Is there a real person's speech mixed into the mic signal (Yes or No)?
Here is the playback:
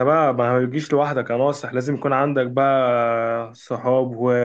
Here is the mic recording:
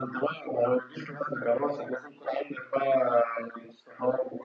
No